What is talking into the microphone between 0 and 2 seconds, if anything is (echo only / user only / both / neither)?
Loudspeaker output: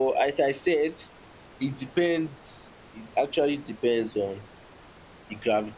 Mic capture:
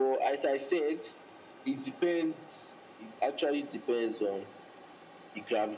echo only